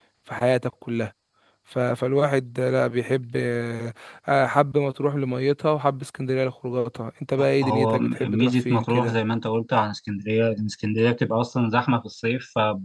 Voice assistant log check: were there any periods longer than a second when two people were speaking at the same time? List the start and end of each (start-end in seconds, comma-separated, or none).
7.6-9.2